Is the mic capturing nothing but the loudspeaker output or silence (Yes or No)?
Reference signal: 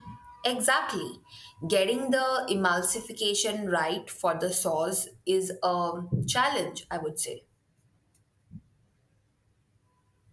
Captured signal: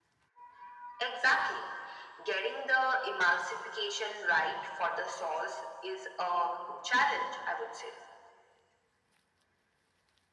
Yes